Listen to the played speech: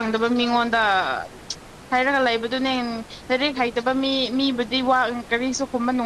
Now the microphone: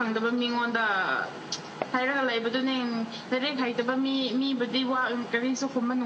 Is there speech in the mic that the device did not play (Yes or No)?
No